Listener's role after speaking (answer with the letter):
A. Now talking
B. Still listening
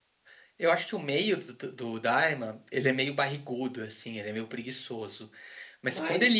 B